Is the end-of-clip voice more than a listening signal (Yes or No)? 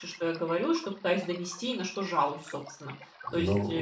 Yes